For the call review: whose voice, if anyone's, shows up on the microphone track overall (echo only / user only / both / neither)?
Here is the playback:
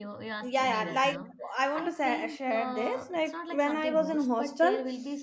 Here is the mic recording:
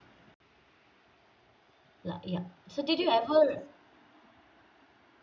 user only